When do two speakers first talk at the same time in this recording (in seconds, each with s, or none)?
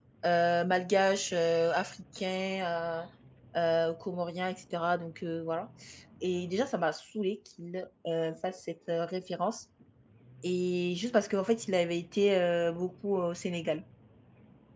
none